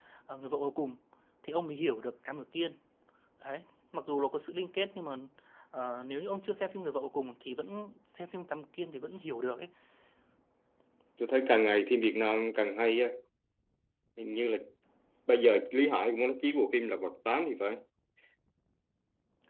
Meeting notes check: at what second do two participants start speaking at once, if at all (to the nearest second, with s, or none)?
none